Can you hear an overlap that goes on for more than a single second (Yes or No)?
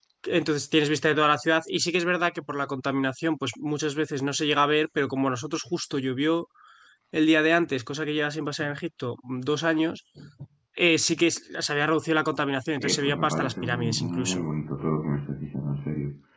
Yes